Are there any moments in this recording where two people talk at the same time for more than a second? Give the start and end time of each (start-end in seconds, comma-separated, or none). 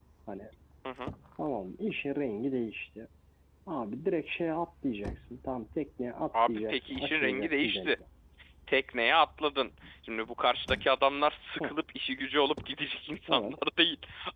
6.5-8.0